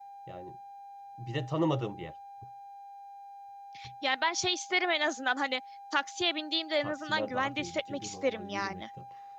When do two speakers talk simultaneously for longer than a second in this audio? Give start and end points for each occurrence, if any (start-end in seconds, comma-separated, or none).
6.8-8.8